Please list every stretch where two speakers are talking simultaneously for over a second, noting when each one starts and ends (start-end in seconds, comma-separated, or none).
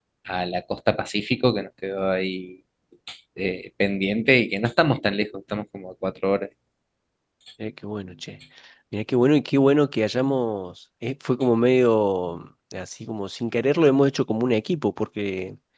none